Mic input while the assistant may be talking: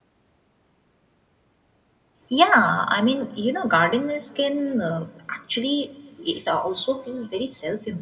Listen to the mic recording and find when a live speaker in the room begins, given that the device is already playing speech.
2.3 s

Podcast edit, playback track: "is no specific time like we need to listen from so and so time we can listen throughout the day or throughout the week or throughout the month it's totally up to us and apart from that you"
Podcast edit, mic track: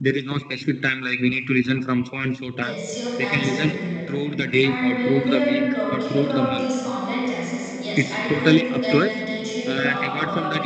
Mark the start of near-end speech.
2.6 s

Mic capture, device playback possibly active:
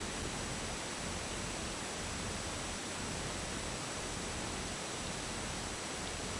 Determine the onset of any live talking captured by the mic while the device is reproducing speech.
none

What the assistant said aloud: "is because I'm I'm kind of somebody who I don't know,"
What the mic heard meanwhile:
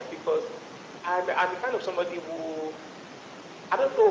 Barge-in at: none

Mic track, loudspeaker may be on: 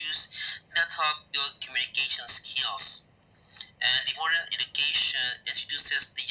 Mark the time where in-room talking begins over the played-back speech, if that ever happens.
none

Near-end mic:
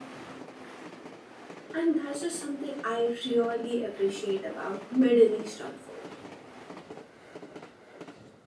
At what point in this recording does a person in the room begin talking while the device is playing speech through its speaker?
1.7 s

